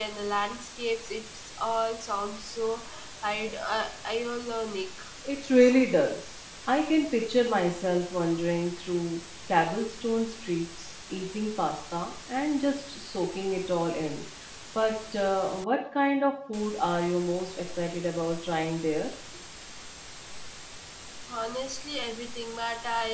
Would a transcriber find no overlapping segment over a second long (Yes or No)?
Yes